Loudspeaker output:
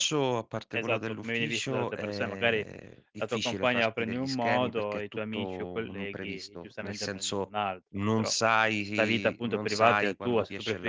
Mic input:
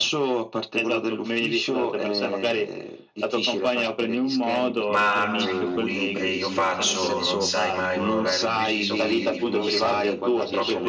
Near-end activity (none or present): present